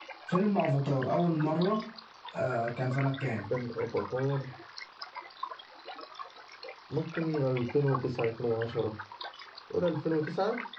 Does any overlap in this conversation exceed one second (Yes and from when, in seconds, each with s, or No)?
No